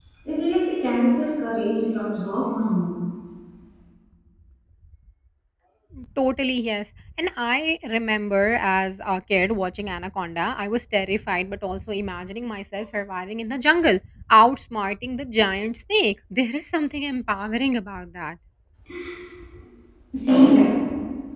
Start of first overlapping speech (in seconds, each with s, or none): none